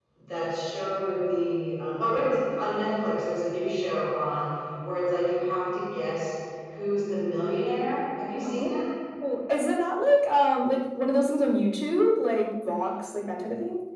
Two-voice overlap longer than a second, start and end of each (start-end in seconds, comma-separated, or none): none